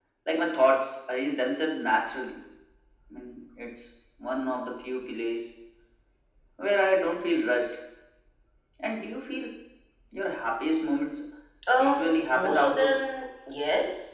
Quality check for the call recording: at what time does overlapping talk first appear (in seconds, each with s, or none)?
11.8 s